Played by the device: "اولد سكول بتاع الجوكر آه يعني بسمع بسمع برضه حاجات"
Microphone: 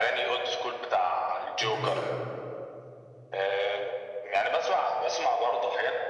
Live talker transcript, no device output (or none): انت مثلا